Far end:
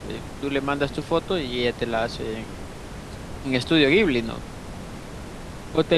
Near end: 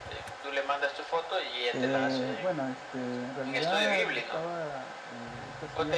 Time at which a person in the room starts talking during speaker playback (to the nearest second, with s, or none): 2 s